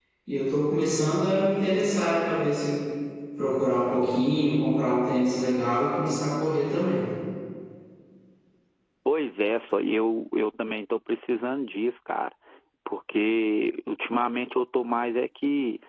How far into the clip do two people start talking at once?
none

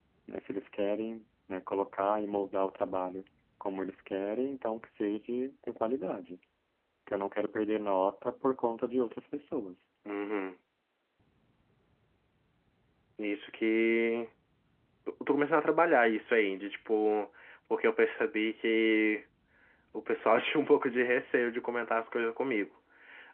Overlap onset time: none

